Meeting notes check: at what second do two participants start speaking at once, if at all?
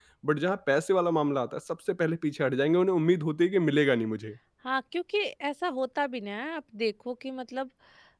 none

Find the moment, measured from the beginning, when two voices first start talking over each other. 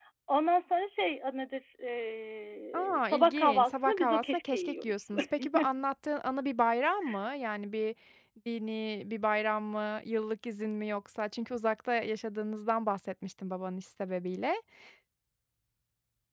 2.7 s

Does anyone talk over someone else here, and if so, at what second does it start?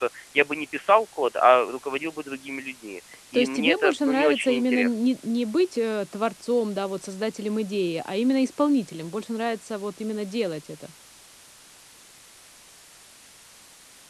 3.3 s

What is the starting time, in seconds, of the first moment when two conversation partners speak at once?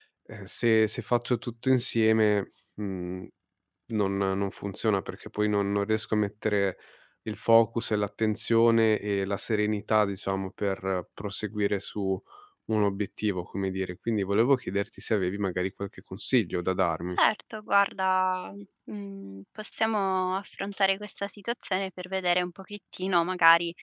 none

